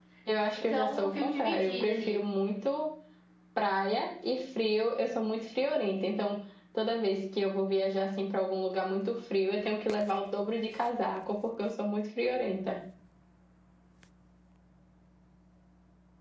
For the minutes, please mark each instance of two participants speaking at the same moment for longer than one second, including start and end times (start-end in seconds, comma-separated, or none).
0.6-2.2